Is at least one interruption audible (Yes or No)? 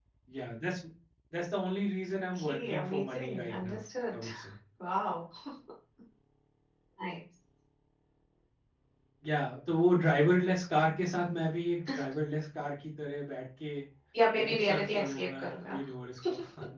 Yes